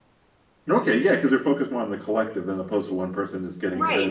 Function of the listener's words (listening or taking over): taking over